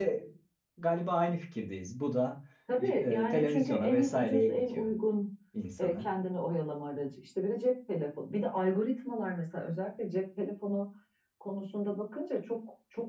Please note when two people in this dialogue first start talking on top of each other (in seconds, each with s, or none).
2.8 s